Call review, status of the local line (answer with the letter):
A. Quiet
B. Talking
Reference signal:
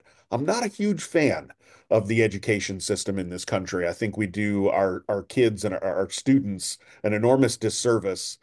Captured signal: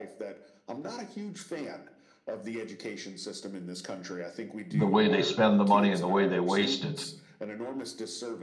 B